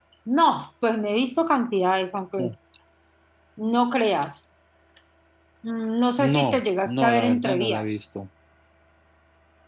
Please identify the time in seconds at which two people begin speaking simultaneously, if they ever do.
6.3 s

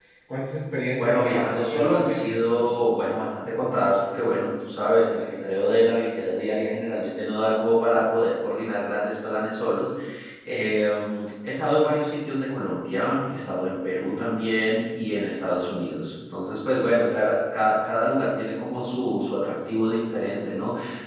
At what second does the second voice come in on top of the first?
1.0 s

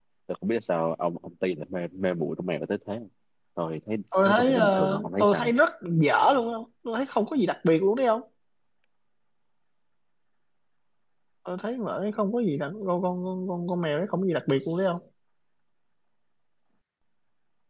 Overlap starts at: 4.2 s

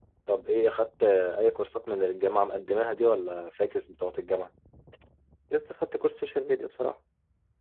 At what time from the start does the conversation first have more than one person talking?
none

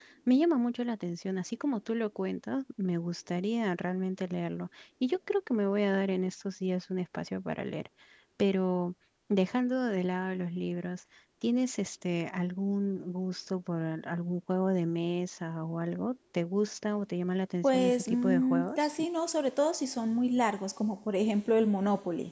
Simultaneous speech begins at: 17.6 s

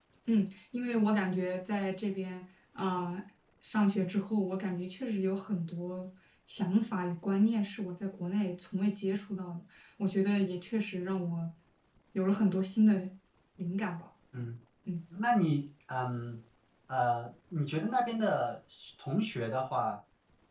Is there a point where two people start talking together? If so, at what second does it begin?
none

